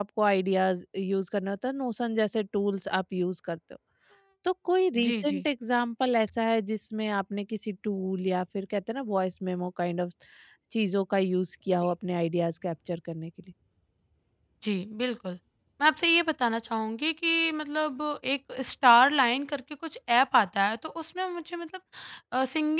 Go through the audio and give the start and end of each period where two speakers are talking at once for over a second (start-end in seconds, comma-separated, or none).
none